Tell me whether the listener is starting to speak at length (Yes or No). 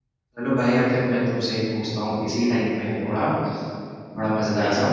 No